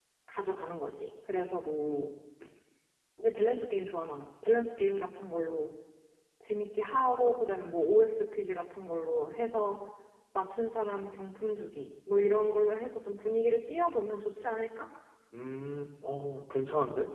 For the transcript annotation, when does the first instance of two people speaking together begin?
none

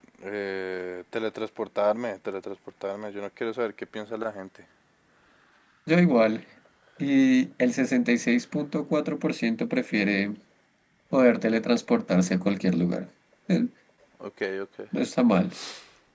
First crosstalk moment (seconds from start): none

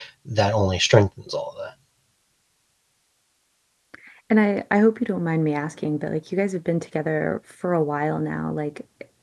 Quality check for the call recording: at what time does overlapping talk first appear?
none

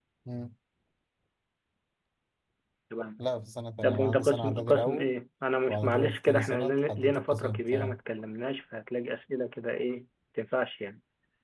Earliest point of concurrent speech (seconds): 3.8 s

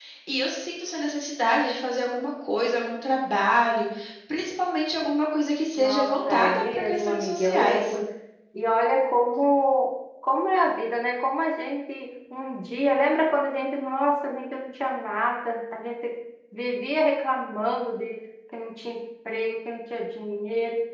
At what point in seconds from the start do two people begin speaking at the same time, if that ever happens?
5.8 s

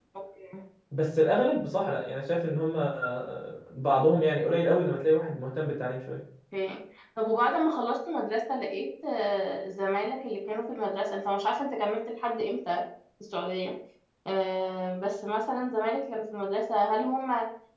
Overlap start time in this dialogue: none

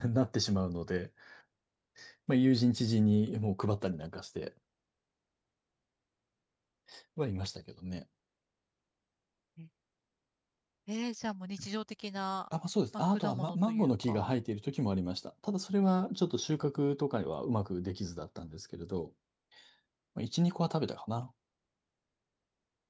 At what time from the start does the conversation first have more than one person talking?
13.1 s

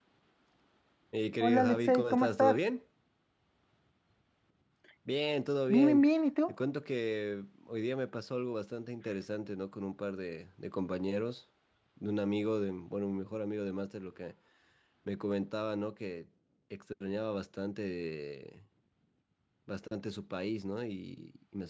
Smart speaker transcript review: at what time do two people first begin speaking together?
1.4 s

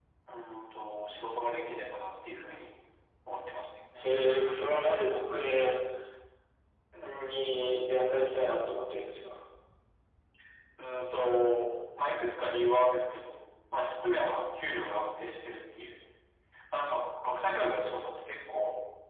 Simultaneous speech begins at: none

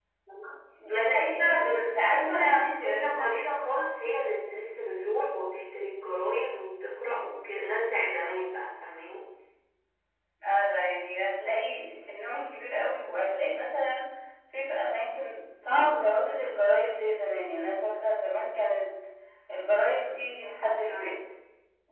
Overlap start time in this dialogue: 0.9 s

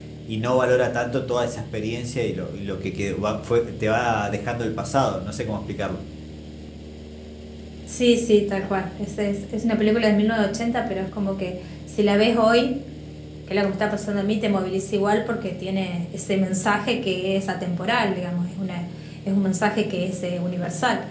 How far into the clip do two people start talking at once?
none

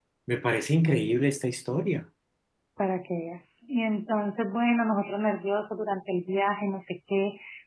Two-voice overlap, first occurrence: none

